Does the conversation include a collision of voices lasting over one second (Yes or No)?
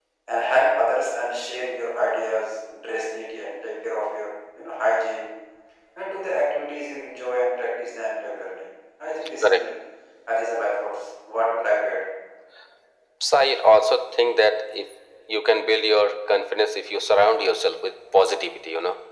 No